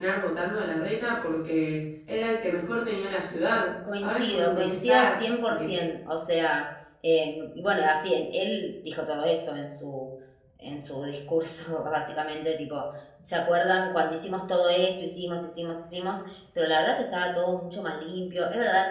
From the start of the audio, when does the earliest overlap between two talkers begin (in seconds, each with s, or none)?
3.9 s